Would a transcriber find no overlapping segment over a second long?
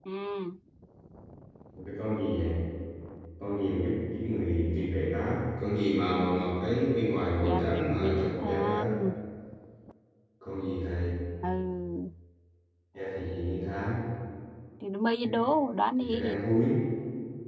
No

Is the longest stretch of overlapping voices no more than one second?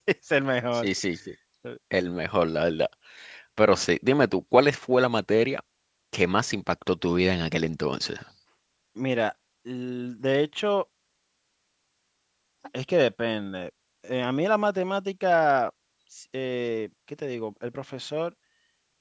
Yes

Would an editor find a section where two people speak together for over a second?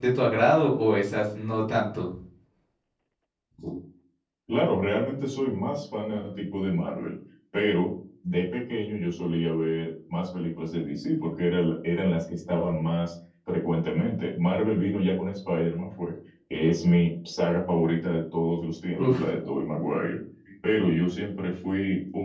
No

